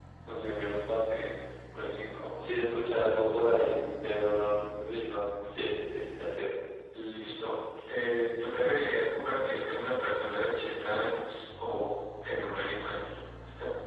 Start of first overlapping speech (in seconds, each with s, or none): none